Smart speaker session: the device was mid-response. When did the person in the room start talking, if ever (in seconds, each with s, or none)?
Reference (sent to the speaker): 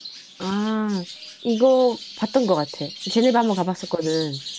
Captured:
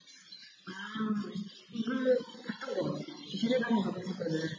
none